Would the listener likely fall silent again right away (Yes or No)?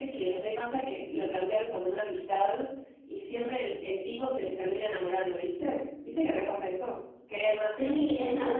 No